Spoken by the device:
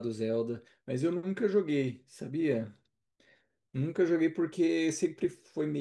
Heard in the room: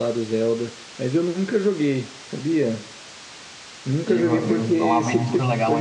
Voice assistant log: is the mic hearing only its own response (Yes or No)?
No